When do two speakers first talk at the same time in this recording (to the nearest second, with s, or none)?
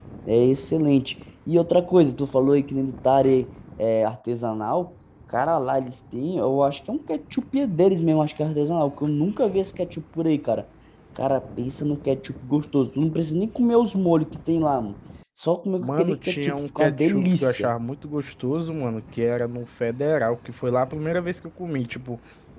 16 s